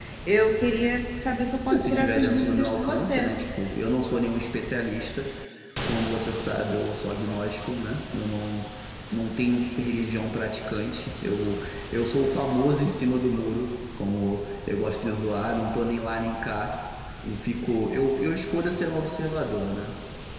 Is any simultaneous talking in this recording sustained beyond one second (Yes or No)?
Yes